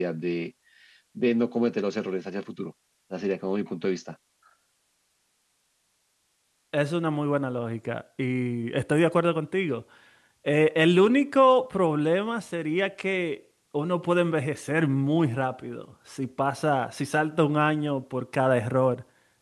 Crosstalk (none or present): none